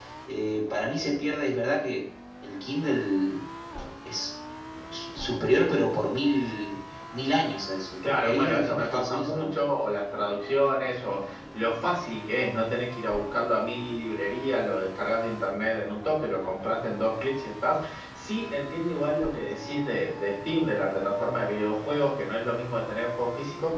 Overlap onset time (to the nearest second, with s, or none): 8 s